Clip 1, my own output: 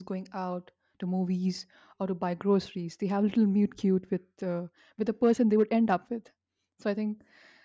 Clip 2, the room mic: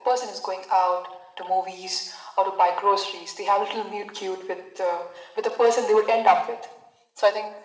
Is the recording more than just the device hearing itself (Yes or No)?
No